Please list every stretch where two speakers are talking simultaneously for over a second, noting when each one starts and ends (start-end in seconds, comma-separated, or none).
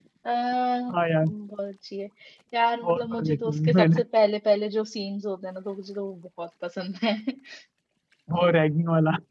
2.8-4.0